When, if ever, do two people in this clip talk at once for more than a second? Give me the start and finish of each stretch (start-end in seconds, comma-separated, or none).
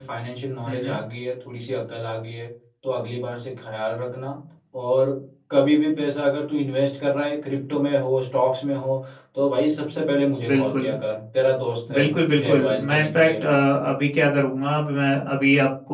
11.9-13.4